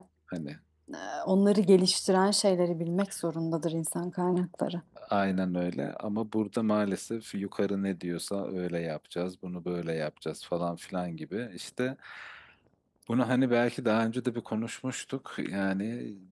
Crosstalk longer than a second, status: none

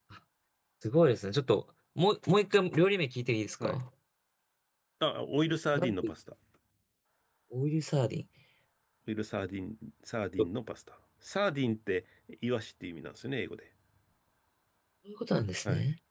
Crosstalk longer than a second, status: none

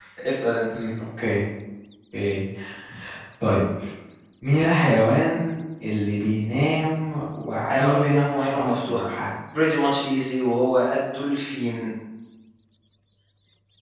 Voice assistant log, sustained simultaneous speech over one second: present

